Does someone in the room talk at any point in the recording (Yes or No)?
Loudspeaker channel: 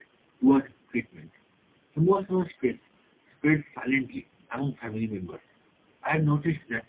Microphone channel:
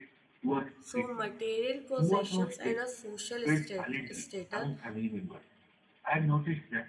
Yes